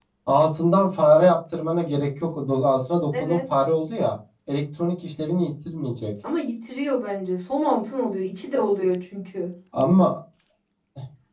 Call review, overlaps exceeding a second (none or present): none